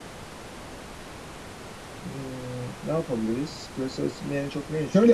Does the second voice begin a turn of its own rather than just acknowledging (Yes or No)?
Yes